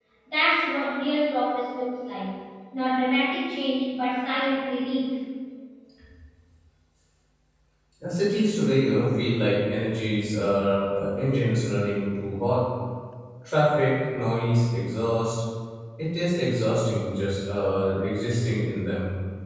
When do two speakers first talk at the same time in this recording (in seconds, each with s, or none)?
none